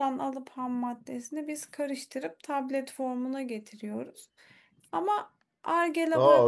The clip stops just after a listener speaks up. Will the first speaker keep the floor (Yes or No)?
No